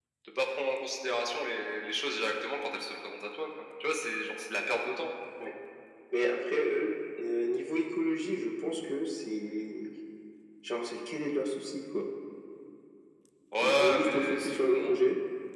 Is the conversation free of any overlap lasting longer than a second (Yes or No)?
No